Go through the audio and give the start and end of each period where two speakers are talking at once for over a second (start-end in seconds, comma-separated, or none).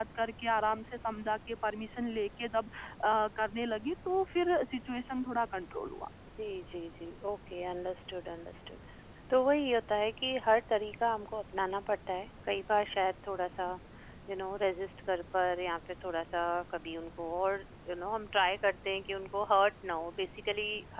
none